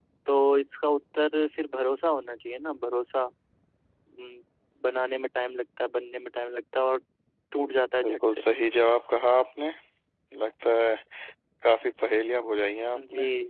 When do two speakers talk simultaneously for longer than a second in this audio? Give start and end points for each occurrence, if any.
none

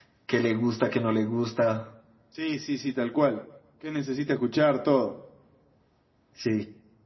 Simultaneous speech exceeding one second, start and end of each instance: none

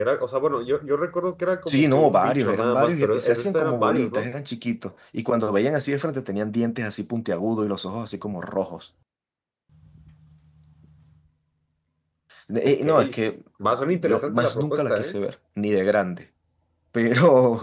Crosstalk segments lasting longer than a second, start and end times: 1.7-4.3, 13.9-15.2

